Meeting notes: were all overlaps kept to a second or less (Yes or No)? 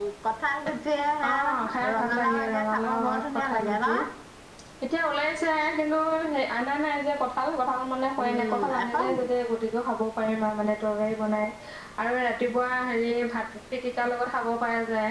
No